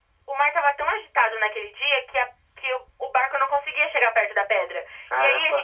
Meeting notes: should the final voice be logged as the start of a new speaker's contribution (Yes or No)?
No